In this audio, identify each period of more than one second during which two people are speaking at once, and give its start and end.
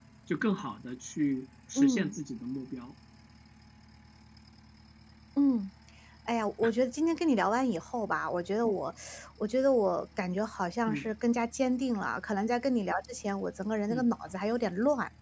none

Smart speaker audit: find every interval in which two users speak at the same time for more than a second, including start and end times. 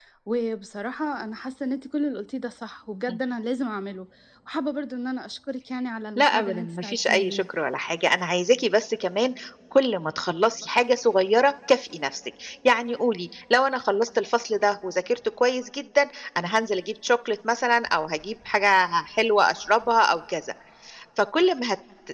6.2-7.4

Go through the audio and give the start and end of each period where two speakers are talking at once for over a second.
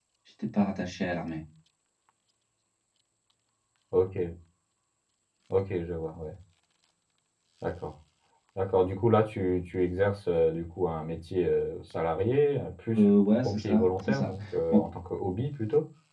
12.9-14.3

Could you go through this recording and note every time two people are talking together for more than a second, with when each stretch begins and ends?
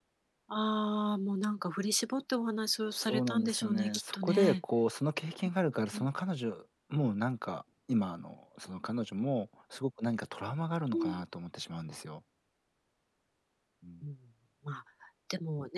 2.9-4.5

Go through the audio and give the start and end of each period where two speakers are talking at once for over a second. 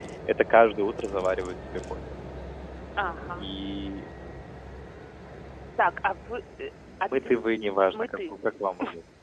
none

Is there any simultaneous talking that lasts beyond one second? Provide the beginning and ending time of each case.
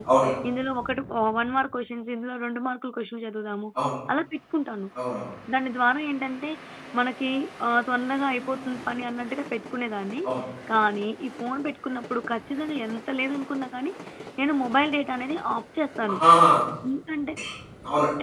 none

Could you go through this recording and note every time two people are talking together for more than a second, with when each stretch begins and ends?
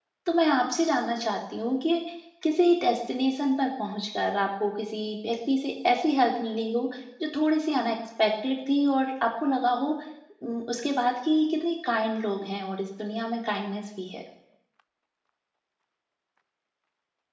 none

